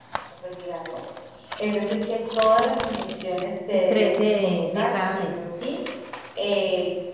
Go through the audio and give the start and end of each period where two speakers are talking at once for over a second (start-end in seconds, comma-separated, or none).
3.9-5.4